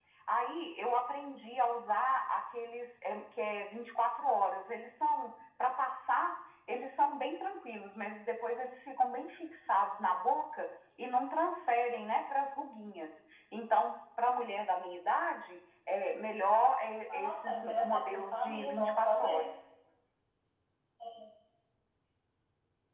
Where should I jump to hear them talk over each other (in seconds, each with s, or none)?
17.1 s